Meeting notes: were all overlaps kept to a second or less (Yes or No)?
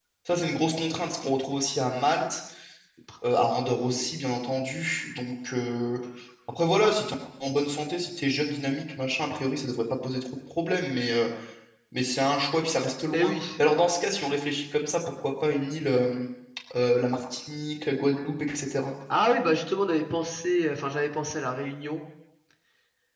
Yes